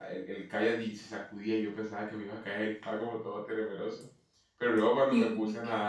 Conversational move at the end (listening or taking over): listening